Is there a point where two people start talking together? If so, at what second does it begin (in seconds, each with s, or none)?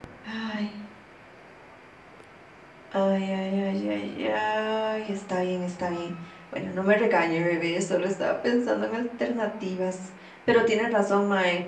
none